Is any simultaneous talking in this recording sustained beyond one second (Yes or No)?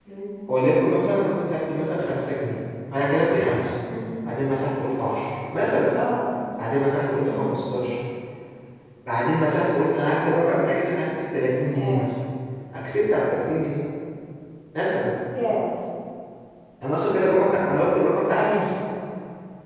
No